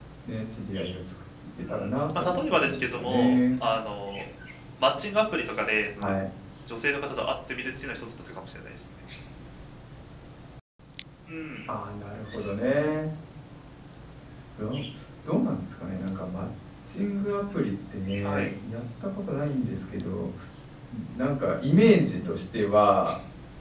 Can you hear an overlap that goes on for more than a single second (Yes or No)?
Yes